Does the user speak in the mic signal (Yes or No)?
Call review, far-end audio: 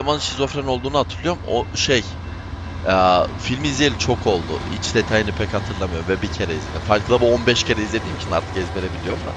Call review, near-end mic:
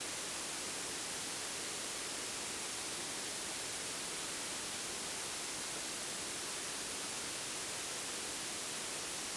No